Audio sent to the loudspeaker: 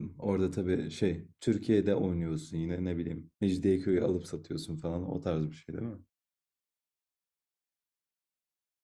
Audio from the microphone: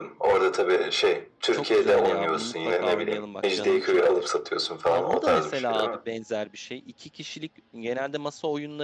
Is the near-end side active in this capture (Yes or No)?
Yes